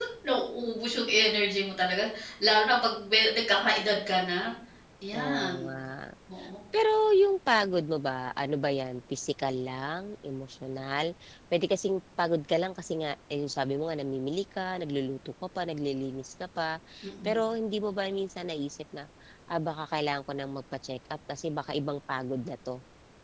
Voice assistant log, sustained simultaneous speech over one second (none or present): none